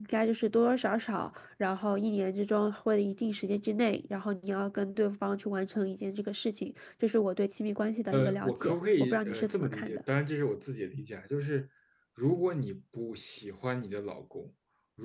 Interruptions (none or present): present